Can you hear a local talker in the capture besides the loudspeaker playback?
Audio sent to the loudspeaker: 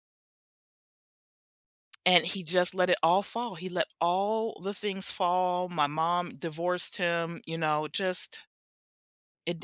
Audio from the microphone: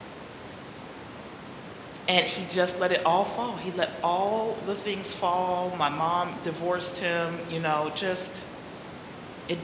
No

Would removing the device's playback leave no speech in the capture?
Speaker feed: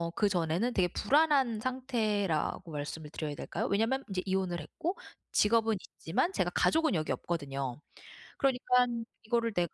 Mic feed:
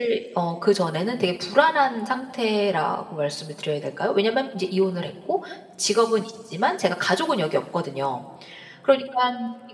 Yes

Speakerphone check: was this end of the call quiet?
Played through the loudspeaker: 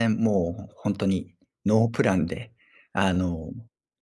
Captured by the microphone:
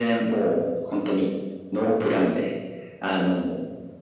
Yes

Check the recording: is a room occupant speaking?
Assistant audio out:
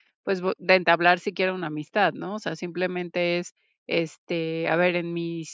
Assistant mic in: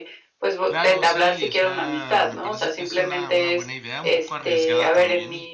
Yes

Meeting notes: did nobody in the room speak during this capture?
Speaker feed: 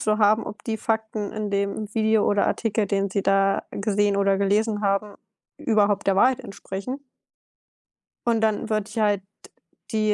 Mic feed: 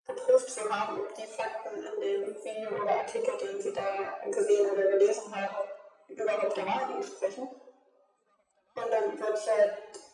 Yes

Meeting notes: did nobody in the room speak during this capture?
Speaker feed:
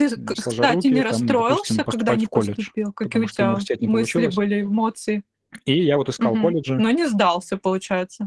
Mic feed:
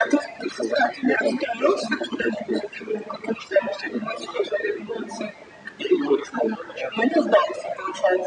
Yes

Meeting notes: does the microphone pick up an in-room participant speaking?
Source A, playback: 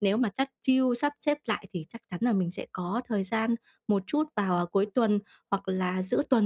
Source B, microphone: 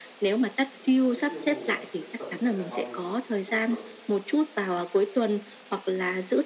Yes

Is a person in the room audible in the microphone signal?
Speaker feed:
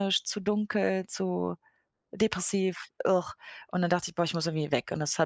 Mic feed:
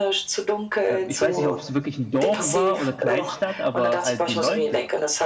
Yes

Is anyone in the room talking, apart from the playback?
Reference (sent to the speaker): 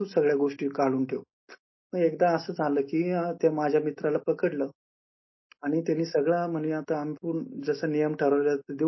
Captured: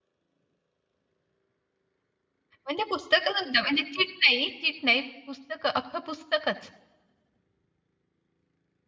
Yes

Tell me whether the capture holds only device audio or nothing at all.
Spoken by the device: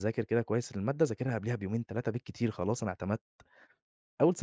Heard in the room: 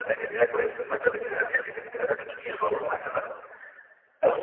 Yes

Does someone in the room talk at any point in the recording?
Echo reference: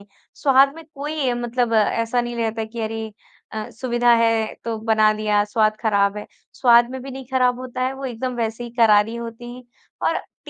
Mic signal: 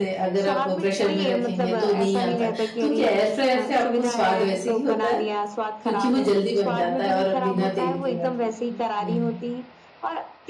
Yes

